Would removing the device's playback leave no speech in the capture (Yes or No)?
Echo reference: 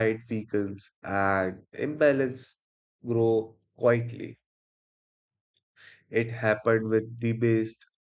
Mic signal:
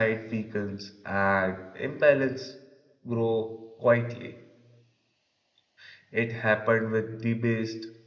Yes